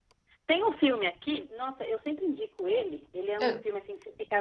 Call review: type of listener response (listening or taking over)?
listening